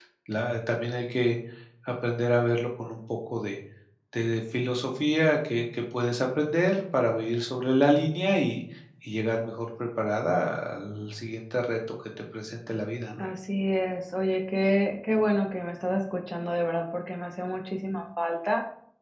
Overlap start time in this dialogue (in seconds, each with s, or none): none